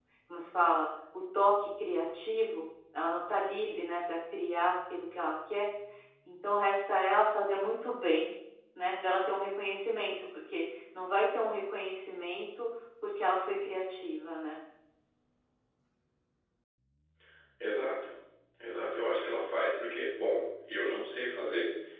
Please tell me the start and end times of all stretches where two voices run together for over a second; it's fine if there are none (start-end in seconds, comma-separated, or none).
none